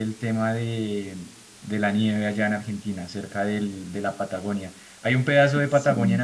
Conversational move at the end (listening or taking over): listening